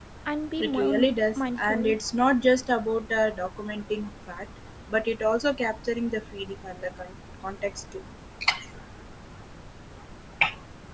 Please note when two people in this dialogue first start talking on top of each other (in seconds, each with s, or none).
0.6 s